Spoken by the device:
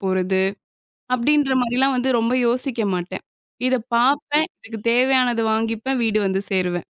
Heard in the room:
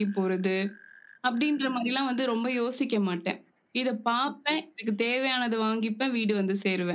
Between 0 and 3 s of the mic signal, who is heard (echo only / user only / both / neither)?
echo only